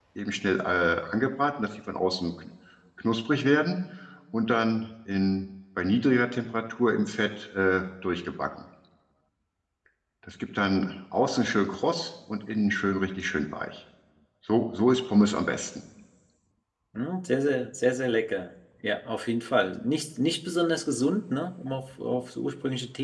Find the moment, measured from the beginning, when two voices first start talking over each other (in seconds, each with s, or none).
none